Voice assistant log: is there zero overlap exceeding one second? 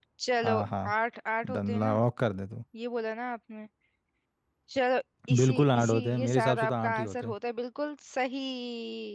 No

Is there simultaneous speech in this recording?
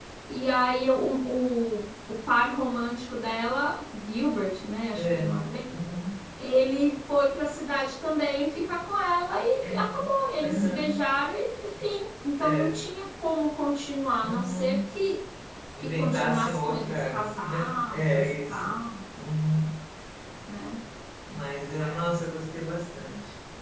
Yes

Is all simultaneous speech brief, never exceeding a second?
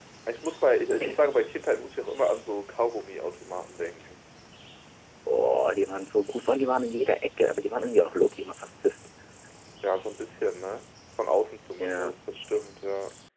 Yes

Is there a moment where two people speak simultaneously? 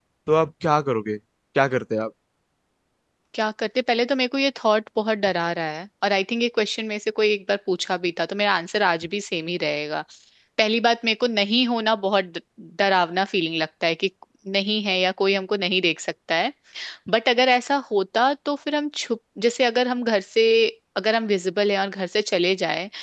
No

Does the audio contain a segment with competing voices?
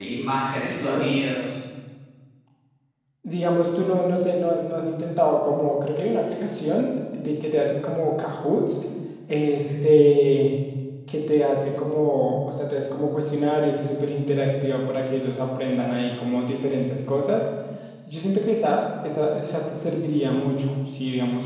Yes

